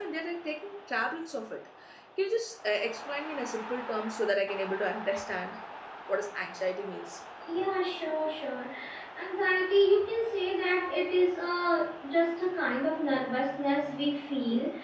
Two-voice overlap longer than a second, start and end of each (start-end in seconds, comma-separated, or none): none